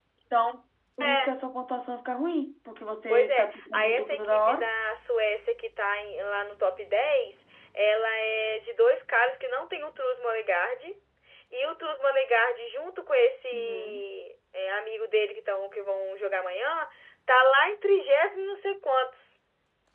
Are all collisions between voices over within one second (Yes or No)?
No